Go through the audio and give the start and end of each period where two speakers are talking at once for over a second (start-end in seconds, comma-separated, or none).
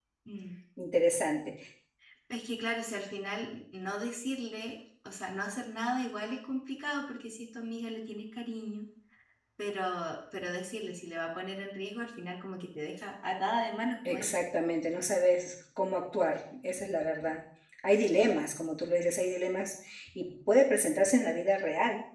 none